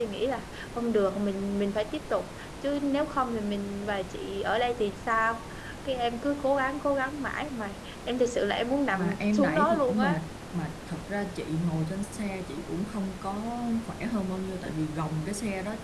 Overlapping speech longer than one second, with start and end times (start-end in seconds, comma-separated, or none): 8.9-10.2